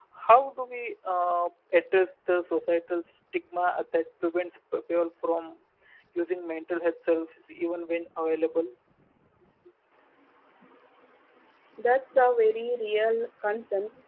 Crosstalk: none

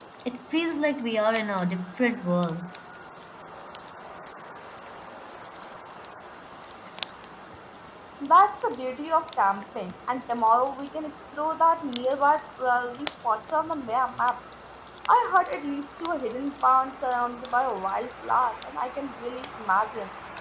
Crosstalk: none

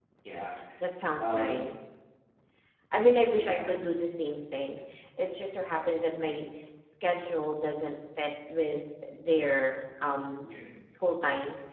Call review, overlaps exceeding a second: none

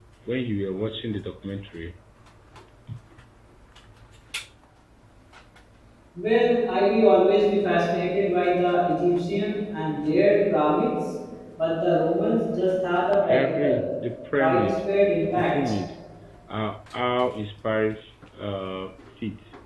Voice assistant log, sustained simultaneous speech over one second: none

